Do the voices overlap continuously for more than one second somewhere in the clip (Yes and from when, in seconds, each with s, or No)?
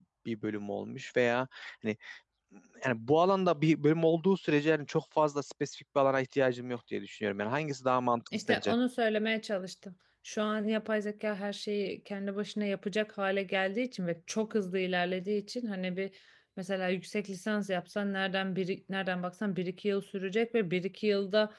No